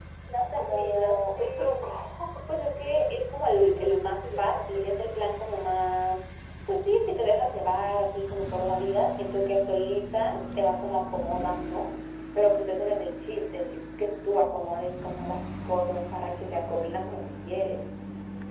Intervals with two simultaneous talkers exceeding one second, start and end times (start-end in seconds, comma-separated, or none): 0.6-1.9, 3.5-4.8